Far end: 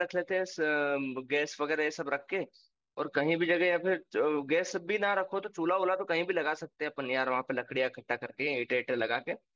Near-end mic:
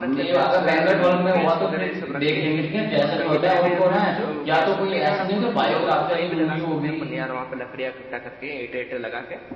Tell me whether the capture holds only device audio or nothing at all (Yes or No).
No